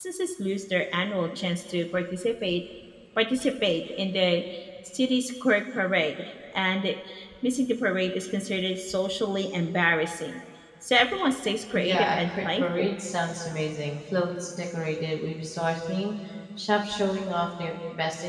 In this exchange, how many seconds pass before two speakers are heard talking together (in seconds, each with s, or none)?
11.7 s